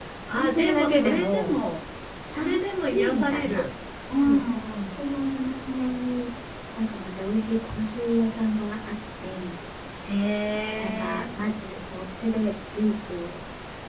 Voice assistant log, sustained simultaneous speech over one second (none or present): present